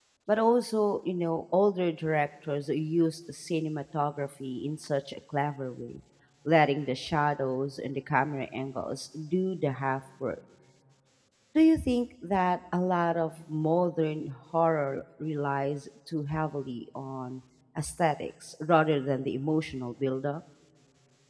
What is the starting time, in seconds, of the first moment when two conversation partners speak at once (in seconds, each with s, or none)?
none